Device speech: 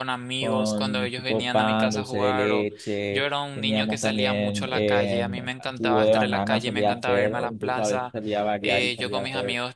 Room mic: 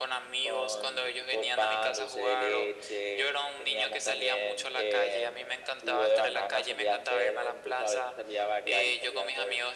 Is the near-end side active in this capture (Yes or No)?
No